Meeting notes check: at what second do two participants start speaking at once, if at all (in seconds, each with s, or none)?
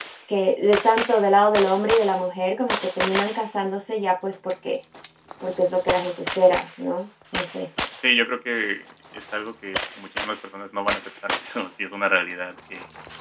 none